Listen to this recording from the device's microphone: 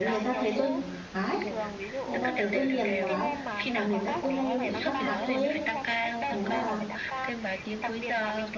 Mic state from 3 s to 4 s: both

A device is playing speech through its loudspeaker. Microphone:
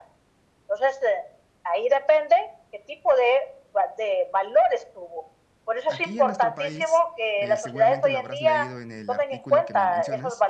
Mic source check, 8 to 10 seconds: both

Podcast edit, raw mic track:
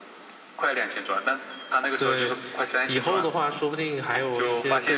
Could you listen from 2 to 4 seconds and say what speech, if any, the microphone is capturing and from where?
both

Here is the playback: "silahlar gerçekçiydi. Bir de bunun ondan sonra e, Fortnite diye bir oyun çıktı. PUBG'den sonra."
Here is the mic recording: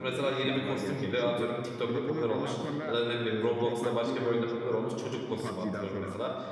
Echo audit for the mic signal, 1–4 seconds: both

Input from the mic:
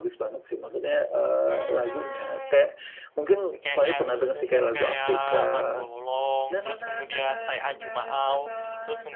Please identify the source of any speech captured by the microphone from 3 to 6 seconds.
both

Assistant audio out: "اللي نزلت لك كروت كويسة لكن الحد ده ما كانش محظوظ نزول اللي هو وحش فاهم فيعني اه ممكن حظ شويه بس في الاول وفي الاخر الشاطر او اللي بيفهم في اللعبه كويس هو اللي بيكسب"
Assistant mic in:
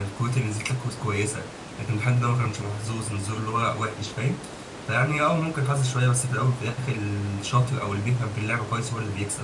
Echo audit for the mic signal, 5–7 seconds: echo only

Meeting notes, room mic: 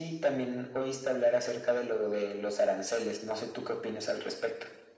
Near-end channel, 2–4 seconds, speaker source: echo only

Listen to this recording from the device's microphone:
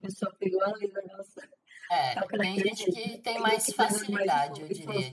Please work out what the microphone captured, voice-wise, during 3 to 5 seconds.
both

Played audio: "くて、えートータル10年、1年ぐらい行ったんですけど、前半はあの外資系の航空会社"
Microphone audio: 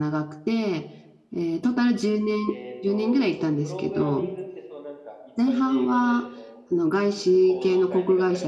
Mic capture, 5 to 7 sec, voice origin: both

